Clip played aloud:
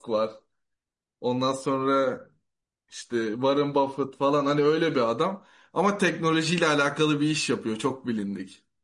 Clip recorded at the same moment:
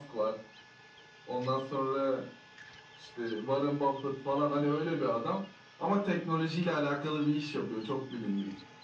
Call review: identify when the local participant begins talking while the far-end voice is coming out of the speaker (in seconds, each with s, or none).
none